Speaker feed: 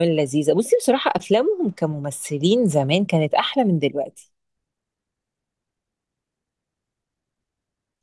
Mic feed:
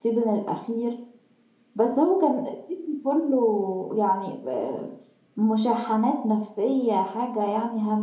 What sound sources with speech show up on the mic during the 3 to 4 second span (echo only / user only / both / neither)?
user only